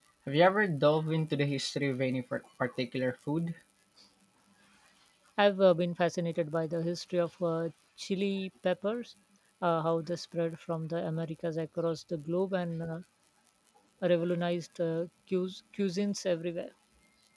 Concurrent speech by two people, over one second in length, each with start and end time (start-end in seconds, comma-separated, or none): none